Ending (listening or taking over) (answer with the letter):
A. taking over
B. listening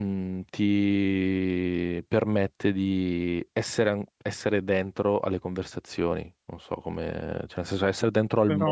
B